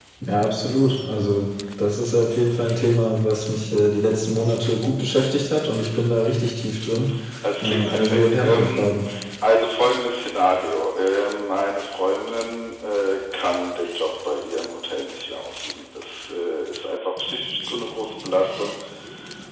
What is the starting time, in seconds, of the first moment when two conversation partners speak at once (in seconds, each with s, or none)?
7.6 s